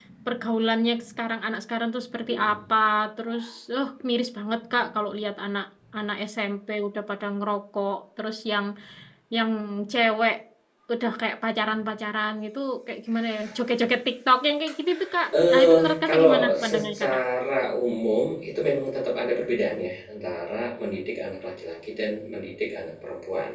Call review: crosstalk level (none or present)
present